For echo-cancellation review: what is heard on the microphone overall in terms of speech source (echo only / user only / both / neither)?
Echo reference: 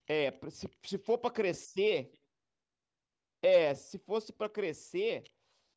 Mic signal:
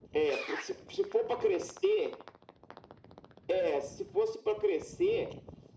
echo only